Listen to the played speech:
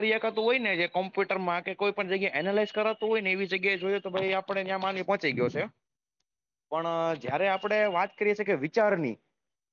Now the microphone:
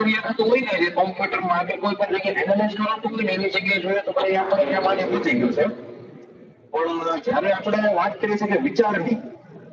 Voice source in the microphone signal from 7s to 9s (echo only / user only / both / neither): echo only